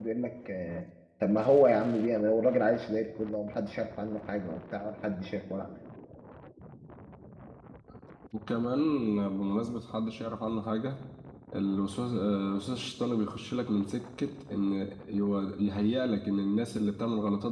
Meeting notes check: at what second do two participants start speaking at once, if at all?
none

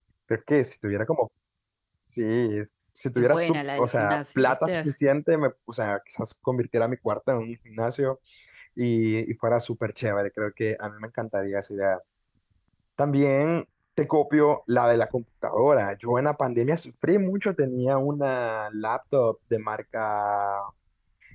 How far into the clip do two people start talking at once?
3.2 s

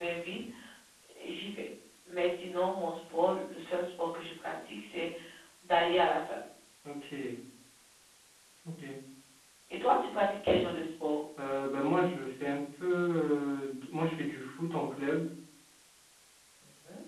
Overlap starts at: none

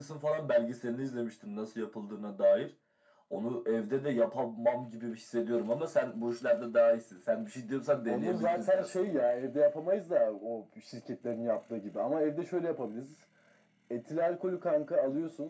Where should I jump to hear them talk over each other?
8.1 s

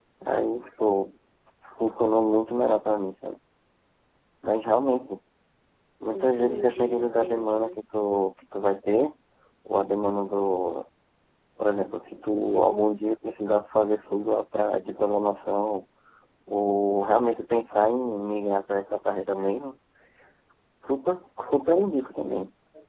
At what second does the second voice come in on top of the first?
6.1 s

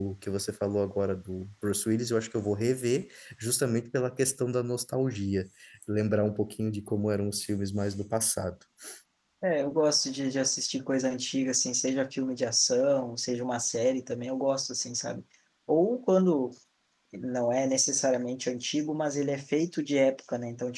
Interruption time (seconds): none

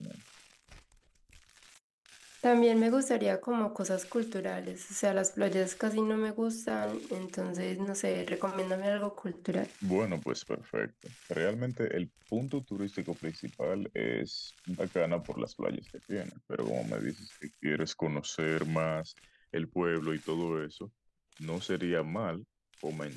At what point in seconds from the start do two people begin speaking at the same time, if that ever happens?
none

